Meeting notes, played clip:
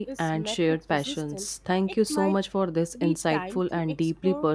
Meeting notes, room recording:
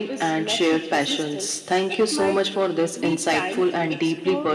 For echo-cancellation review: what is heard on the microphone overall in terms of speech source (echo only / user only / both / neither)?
echo only